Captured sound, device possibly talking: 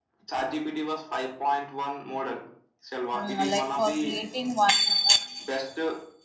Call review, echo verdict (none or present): present